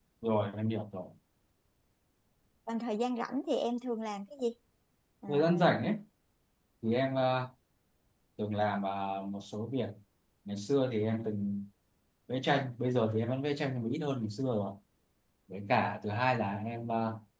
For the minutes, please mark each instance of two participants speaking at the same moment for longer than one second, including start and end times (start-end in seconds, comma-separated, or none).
none